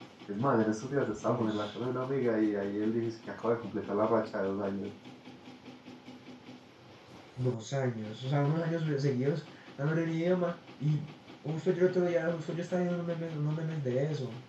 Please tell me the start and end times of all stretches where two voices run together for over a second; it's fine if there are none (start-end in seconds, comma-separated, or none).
none